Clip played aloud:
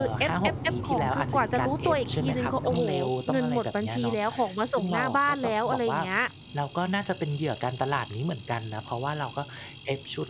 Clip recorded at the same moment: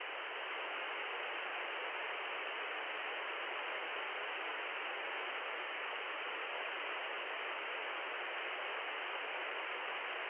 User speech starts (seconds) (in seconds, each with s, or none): none